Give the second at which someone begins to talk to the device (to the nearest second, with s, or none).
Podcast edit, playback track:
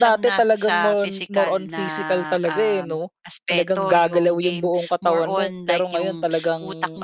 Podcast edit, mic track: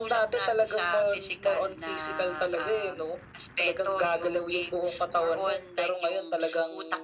none